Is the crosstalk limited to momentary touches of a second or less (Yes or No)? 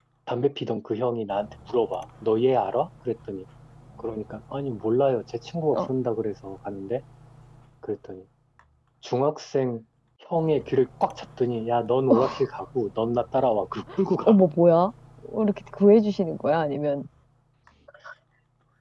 Yes